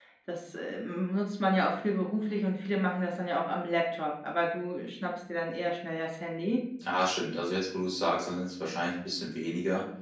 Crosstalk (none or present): none